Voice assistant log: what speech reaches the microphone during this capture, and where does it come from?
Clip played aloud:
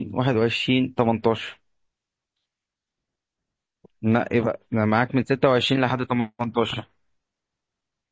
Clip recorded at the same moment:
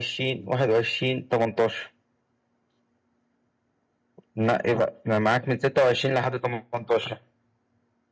echo only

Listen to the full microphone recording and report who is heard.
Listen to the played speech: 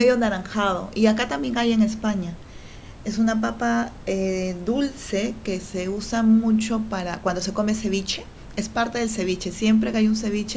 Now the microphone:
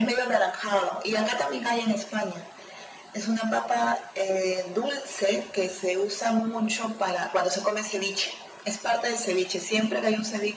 echo only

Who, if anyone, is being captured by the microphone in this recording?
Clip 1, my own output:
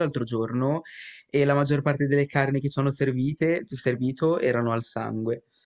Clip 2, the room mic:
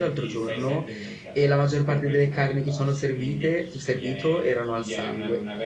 both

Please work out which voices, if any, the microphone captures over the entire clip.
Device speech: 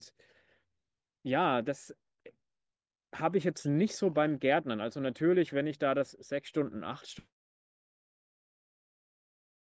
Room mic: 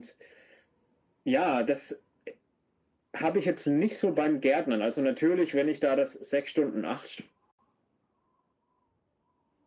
echo only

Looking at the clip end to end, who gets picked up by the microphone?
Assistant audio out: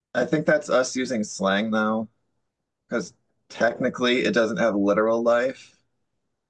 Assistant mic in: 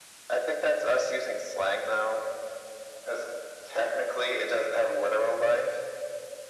echo only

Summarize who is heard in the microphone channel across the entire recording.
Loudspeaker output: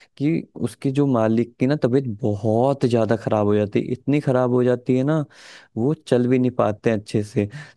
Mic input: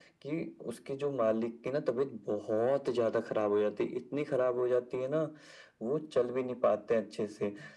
echo only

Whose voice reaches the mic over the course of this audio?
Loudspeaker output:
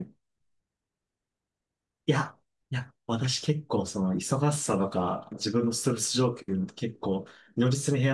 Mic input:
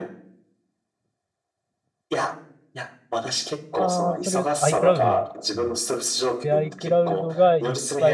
both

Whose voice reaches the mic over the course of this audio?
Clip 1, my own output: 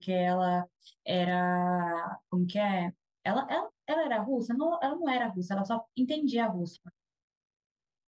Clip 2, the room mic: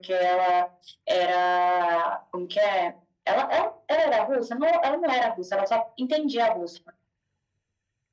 echo only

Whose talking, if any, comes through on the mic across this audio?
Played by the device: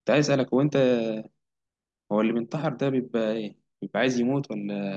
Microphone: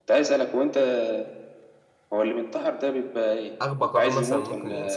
both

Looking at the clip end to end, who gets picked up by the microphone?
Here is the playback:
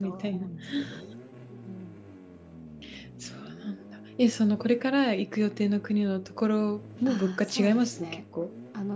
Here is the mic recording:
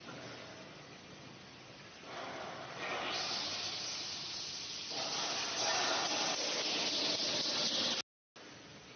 neither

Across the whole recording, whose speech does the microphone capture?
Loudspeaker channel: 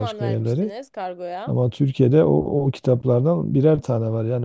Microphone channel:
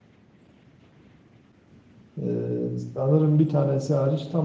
user only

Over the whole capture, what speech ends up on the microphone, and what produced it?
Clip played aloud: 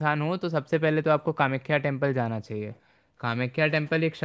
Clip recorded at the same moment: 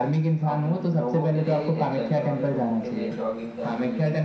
both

